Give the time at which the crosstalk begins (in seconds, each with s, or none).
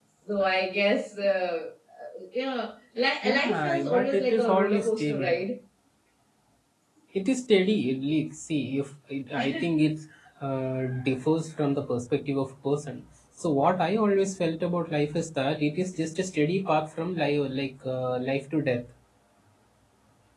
3.2 s